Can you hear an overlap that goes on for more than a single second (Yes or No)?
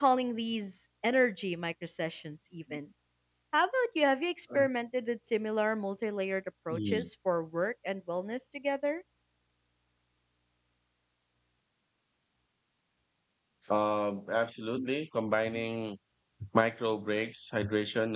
No